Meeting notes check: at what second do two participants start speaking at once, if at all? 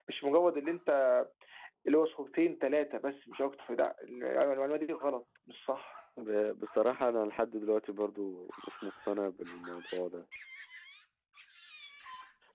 none

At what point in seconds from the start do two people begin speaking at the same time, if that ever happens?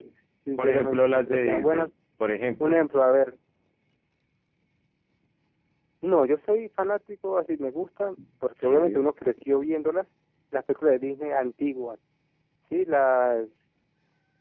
0.6 s

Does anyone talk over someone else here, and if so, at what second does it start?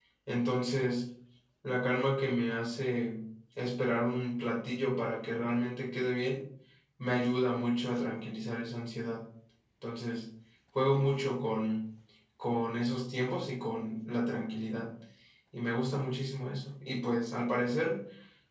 none

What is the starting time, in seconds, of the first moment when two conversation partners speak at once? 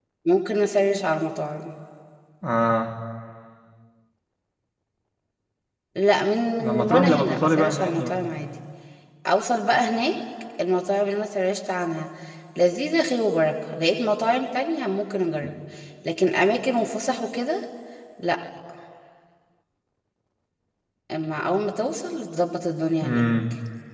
6.6 s

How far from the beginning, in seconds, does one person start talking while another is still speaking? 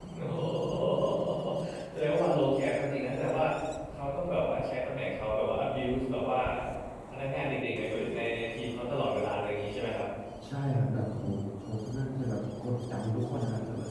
none

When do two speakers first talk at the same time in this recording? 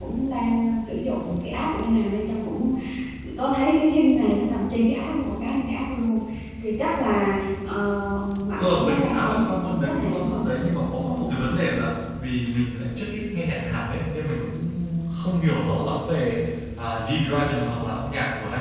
8.6 s

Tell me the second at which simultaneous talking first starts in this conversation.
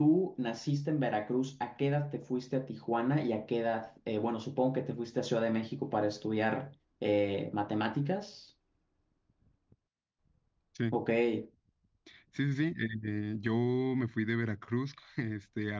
none

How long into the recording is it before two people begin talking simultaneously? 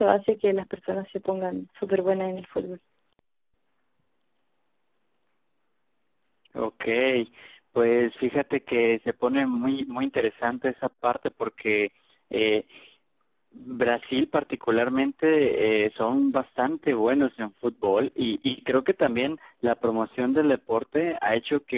none

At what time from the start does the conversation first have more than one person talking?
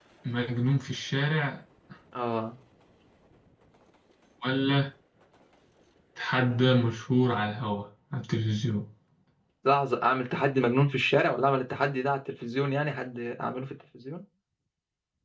none

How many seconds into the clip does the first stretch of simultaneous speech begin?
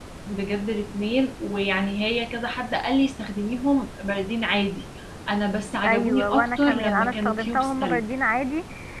5.8 s

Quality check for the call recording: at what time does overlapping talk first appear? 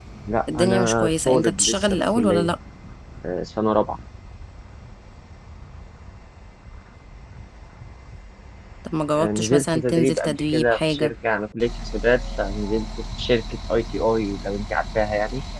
0.6 s

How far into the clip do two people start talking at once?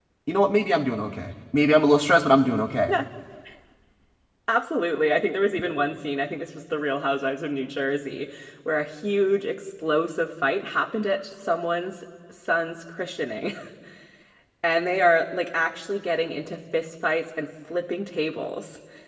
none

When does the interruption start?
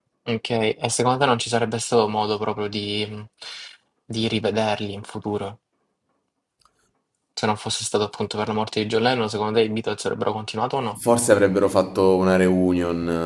none

